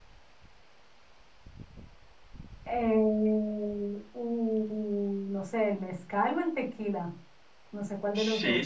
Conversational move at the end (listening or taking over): taking over